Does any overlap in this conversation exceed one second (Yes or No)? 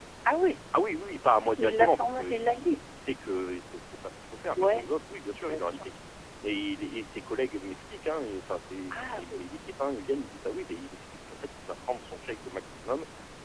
Yes